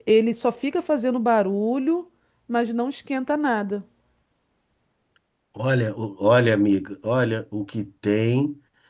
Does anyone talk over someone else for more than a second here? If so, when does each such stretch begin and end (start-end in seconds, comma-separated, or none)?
none